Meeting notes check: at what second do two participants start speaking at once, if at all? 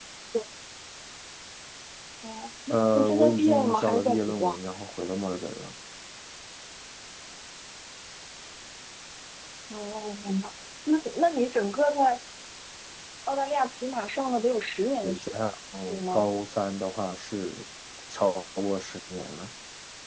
2.7 s

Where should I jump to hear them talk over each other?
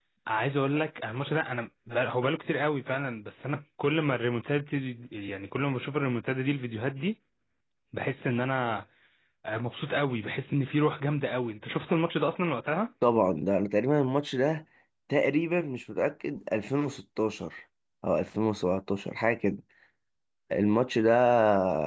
none

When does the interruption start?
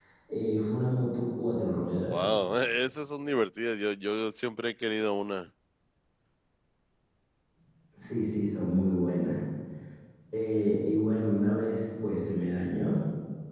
none

